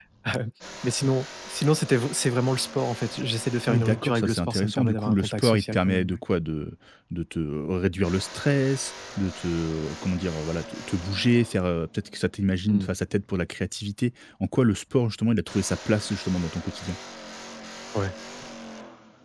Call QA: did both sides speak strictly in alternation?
No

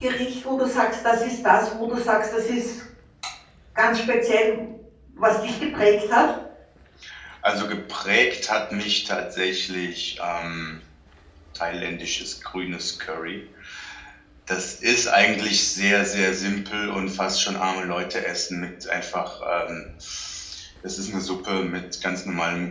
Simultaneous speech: No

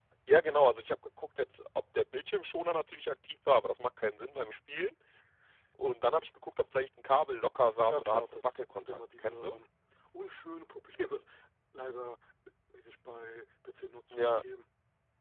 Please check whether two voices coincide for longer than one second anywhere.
Yes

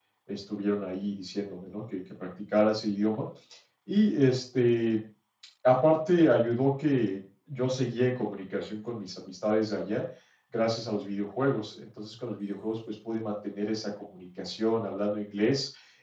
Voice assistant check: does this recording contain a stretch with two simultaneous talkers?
No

